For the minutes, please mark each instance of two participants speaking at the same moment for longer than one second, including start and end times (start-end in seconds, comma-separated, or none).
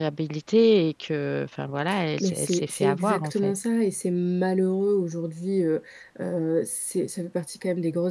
2.2-3.5